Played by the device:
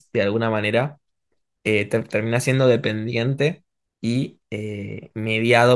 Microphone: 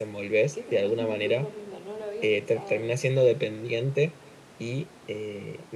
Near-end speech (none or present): present